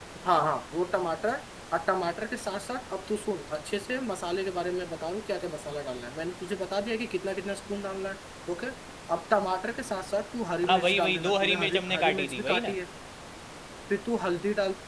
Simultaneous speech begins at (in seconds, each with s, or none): 10.6 s